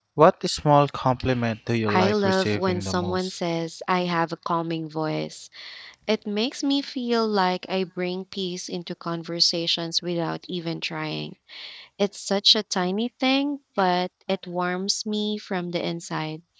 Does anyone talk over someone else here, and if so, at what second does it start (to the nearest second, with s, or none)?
2 s